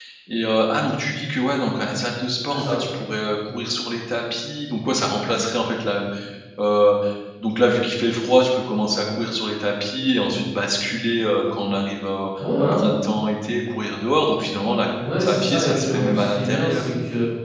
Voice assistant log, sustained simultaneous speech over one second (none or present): present